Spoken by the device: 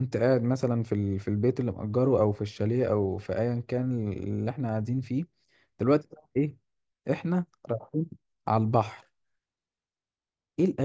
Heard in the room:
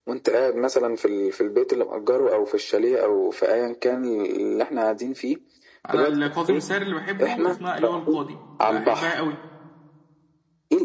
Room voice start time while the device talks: 5.9 s

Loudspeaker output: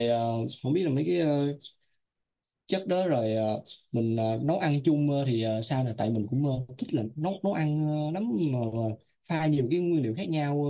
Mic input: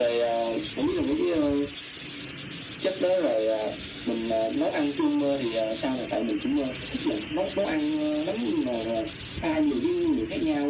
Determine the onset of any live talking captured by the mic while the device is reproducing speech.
none

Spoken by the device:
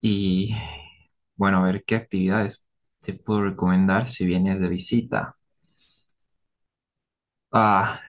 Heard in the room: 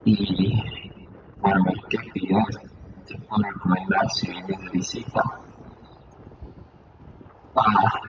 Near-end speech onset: none

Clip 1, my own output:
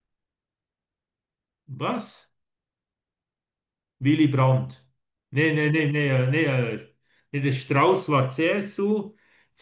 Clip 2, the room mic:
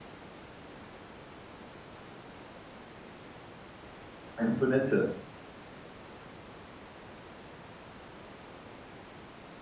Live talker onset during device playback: 4.4 s

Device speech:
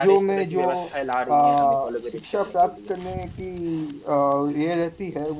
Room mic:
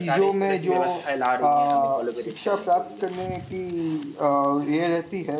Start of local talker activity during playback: none

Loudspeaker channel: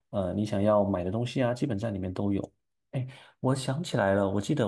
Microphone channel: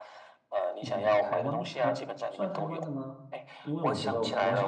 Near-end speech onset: 0.8 s

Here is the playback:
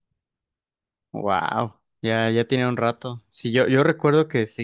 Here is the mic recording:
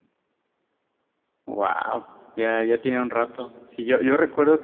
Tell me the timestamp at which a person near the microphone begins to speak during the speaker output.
none

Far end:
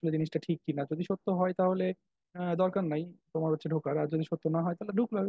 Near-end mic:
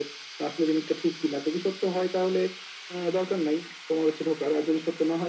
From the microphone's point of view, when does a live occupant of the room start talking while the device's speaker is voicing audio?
none

